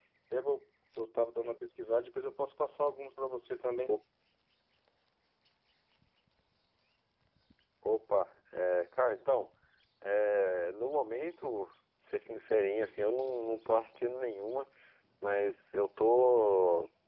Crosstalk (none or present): none